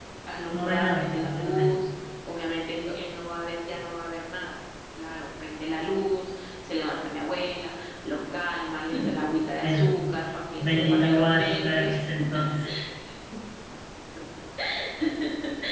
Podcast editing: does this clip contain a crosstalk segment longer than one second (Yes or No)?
Yes